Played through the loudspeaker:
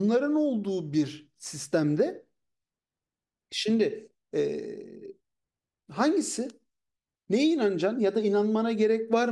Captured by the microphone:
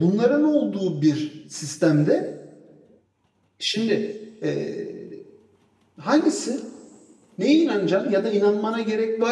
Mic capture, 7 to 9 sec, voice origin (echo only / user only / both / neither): echo only